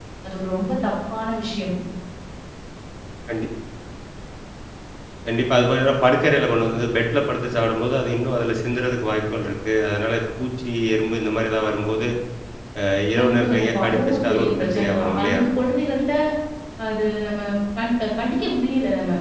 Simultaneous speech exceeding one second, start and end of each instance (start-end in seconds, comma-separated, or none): 13.2-15.4